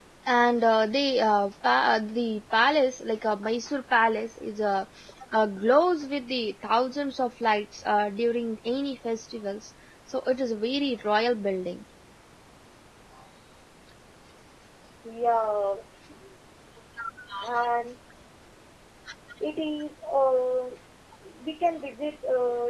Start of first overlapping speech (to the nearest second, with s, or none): none